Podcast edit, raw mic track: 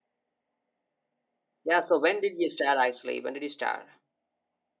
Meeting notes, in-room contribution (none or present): present